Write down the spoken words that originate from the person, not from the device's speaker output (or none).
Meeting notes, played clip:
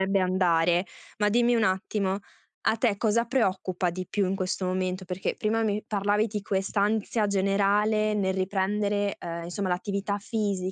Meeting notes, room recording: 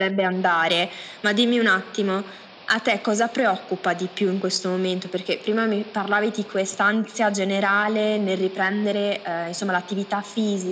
none